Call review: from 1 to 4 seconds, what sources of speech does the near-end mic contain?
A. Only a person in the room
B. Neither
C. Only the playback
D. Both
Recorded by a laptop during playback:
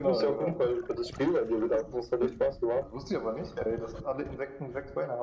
D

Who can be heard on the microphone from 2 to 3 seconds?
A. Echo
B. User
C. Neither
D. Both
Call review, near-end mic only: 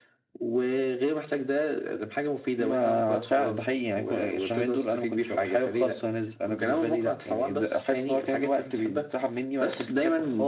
D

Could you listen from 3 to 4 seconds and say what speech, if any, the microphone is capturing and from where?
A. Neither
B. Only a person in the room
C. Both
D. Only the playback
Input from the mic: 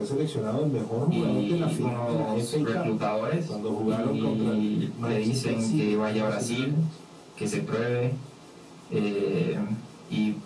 D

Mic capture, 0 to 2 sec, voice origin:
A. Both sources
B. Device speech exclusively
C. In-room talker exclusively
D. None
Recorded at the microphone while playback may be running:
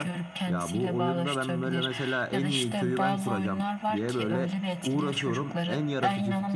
A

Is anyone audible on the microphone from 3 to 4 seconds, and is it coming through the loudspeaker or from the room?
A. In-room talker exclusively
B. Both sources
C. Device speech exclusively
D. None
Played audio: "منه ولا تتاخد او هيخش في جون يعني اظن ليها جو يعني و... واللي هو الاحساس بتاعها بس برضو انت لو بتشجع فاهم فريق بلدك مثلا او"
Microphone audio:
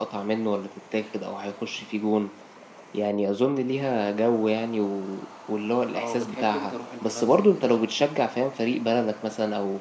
C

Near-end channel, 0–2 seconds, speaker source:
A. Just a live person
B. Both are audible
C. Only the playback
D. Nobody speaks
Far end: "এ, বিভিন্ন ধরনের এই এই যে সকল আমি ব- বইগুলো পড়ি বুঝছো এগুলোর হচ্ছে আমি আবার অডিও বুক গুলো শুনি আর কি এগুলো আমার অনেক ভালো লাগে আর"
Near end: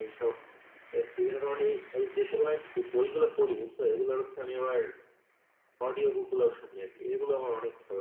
C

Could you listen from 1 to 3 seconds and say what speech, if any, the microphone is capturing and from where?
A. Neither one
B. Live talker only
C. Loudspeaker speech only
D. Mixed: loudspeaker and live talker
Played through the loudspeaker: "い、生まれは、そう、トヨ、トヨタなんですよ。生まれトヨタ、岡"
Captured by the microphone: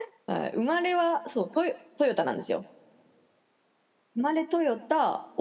C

